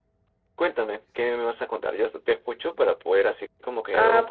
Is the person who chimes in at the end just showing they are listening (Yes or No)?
No